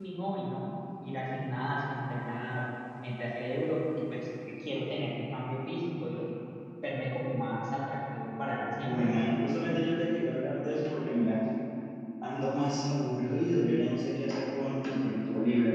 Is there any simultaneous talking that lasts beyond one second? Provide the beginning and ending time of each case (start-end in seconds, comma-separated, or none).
none